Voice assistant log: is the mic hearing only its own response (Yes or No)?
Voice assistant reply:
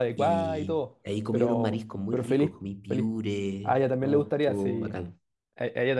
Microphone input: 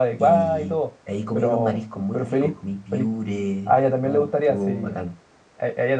Yes